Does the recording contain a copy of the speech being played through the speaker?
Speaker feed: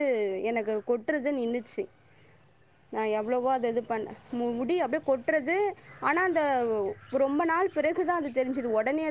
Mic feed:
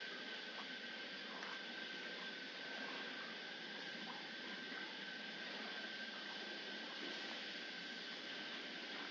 No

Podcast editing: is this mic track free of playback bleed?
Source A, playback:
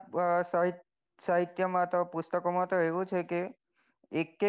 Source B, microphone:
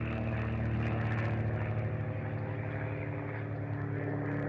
Yes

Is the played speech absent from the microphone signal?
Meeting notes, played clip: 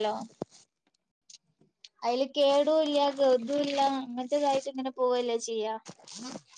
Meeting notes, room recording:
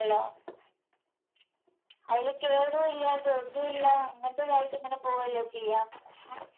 No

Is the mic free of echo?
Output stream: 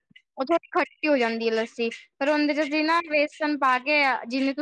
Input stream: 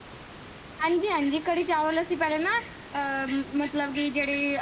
Yes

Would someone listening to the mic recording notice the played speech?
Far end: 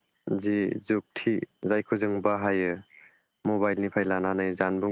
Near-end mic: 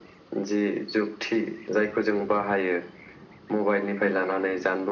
Yes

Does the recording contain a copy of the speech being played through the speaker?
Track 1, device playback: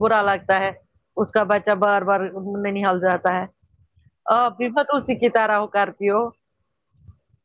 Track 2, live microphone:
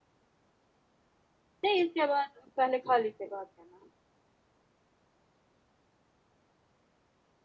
No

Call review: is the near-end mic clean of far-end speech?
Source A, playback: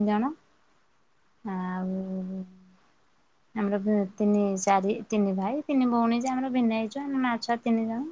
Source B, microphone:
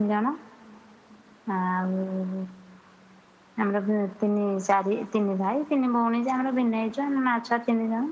No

